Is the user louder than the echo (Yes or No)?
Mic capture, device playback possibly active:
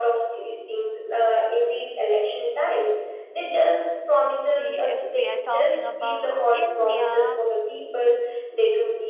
No